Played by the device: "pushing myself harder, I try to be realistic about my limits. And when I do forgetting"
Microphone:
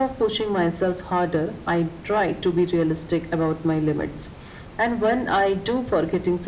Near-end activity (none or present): none